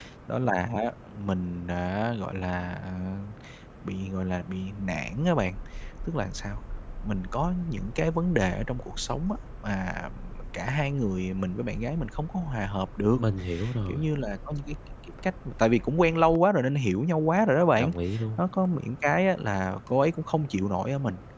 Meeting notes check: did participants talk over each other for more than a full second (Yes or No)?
No